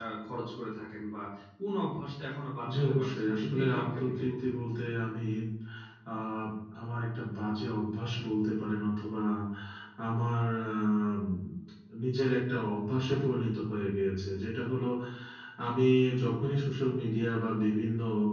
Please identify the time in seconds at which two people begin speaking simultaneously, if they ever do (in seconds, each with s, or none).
2.6 s